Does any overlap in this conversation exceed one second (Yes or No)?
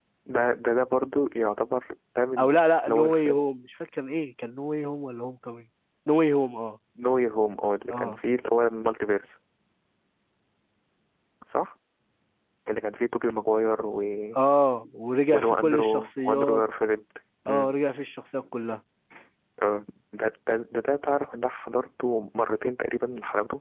Yes